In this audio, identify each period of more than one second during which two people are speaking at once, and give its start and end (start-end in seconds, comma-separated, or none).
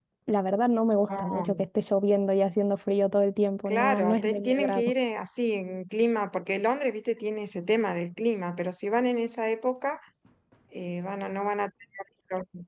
3.7-4.9